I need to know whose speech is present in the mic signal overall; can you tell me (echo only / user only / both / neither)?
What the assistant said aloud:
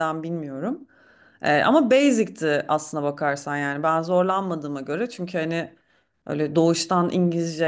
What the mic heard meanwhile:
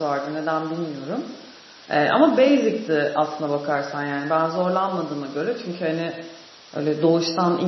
echo only